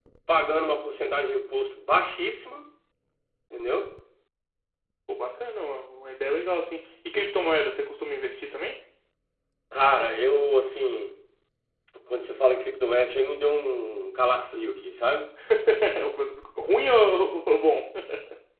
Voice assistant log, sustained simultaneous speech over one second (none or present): none